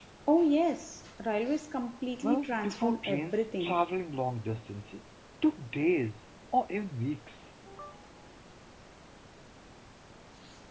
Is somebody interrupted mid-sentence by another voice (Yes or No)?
Yes